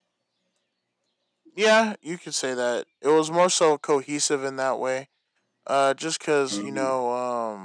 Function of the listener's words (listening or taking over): listening